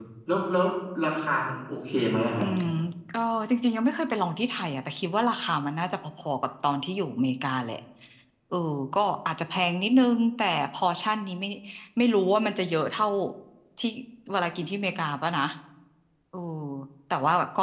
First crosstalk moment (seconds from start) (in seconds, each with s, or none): none